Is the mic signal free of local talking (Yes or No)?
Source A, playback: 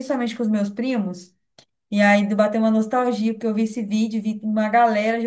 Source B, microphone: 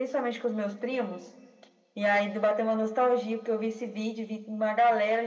Yes